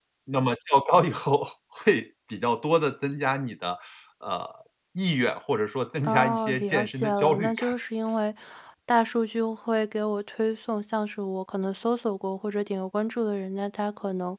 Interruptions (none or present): present